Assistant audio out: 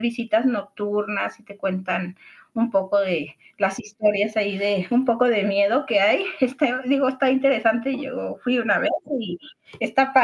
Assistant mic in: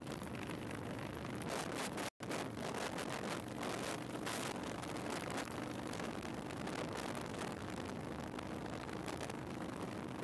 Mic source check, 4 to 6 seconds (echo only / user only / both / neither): neither